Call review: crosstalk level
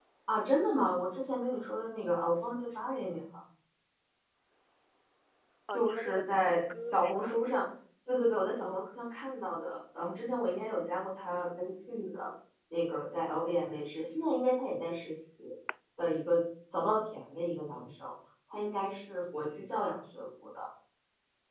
present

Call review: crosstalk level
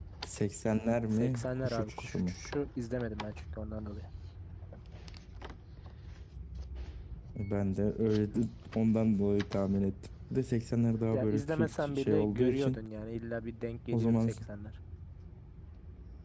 present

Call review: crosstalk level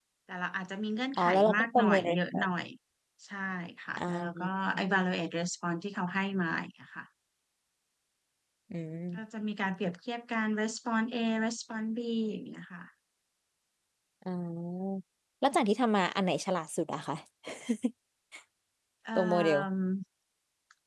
present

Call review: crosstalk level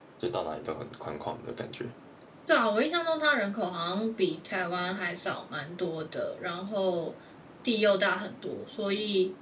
none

